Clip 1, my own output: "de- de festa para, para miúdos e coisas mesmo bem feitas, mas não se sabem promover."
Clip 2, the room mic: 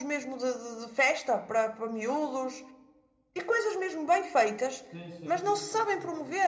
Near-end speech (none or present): present